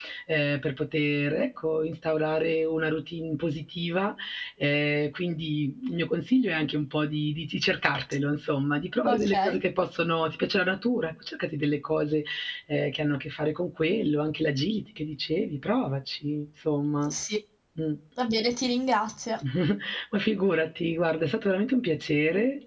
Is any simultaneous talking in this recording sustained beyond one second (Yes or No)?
No